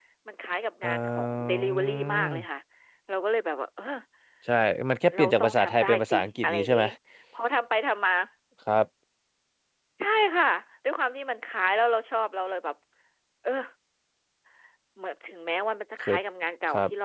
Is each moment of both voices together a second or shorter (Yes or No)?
No